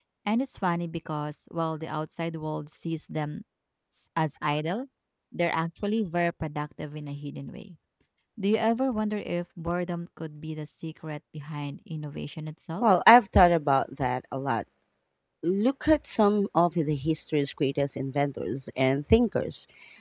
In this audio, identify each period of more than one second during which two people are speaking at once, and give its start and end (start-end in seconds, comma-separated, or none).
none